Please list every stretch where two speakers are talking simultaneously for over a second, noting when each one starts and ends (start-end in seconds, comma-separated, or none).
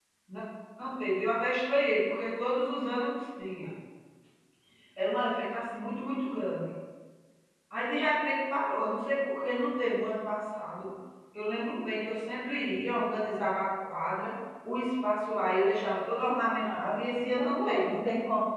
16.6-18.0